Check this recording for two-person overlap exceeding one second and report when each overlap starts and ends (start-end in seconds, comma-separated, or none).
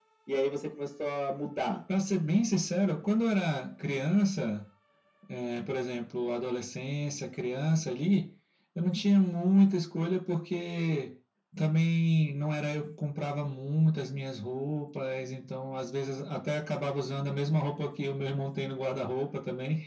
none